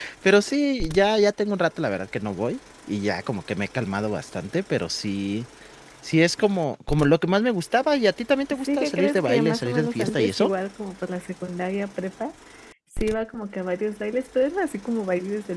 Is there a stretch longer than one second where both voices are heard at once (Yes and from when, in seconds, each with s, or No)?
Yes, from 8.5 s